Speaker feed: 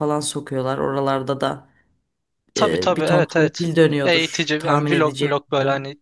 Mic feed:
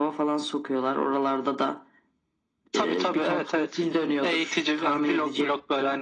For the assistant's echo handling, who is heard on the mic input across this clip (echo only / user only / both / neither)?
echo only